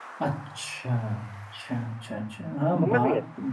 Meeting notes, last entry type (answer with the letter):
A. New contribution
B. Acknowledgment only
A